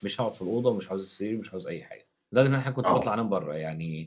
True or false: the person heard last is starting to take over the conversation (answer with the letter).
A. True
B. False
B